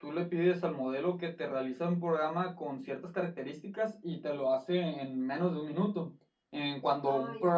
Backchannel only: Yes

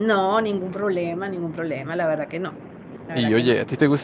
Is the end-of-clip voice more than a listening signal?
Yes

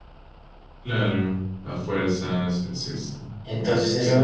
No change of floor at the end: No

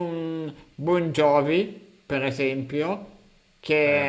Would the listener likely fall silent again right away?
Yes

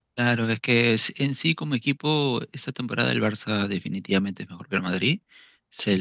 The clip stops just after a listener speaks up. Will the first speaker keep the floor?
Yes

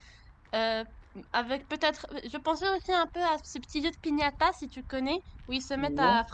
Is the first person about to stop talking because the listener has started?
No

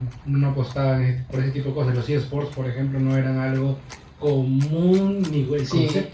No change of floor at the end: No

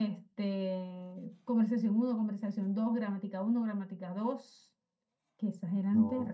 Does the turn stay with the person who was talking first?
Yes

